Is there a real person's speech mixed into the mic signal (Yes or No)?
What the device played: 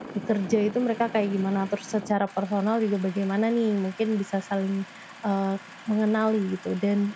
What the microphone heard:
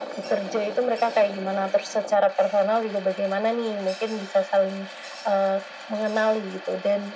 No